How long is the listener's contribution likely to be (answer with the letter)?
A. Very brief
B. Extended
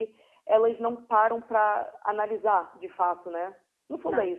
A